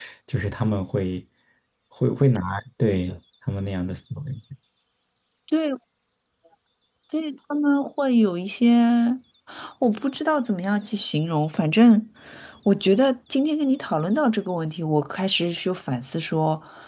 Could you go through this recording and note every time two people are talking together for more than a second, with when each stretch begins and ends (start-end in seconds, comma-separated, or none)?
none